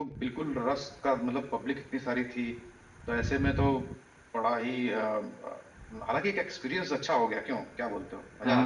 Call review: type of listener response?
taking over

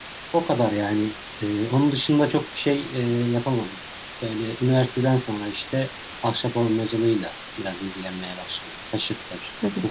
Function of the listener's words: taking over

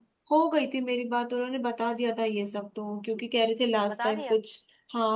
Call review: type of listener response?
listening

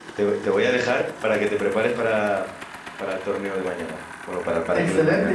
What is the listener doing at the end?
taking over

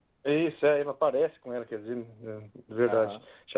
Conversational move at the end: taking over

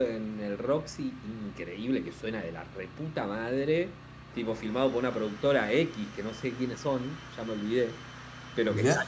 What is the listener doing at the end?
listening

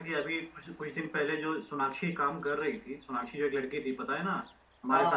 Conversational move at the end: listening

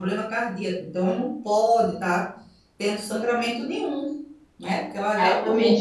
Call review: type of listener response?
taking over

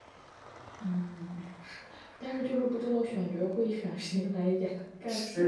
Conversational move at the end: listening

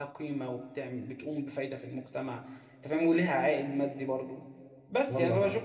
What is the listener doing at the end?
listening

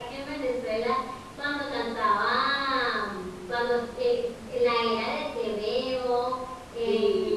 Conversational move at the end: listening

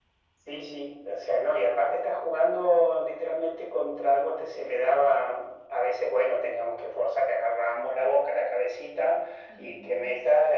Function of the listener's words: listening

